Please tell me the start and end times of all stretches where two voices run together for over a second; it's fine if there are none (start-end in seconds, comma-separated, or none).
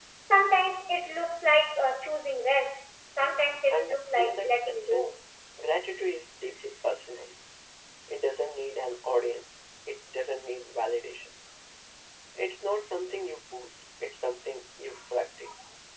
3.7-5.1